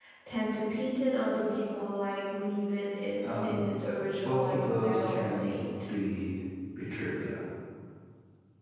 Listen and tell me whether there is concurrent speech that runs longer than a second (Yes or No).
Yes